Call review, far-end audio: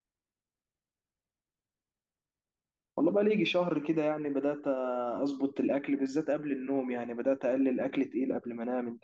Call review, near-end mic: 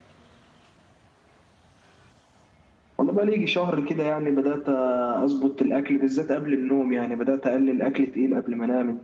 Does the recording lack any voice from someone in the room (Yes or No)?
Yes